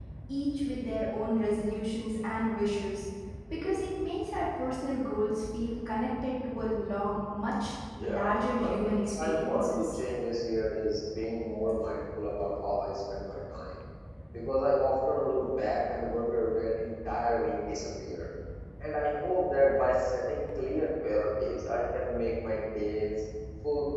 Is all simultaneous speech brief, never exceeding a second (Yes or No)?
No